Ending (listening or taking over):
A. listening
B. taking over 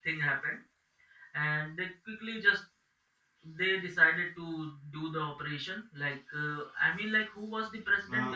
B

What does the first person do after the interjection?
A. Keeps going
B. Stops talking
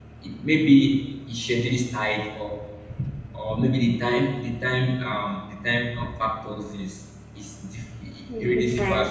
A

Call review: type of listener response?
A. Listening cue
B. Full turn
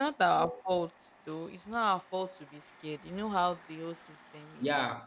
B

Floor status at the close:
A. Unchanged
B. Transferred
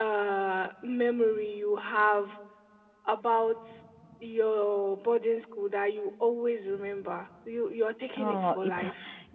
B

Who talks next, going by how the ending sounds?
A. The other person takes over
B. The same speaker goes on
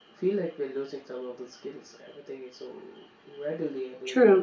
A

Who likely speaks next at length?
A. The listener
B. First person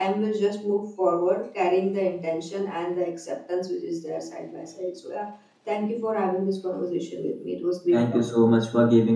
A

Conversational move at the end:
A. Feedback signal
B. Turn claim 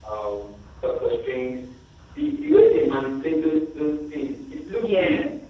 A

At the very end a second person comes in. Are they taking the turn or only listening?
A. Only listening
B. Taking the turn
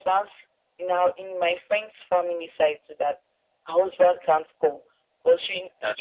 A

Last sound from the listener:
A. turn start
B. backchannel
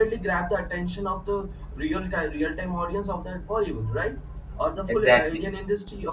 B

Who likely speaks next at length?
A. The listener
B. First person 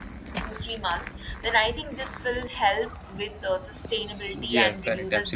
A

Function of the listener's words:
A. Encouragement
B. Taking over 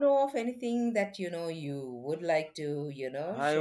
B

